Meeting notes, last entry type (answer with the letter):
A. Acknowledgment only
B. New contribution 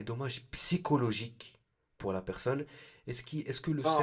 A